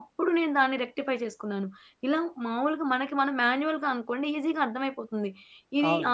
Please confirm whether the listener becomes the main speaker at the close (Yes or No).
No